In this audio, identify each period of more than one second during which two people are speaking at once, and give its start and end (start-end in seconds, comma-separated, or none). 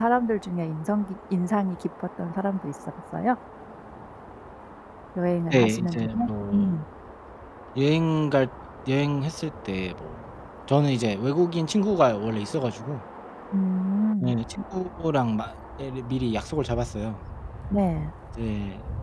5.5-6.8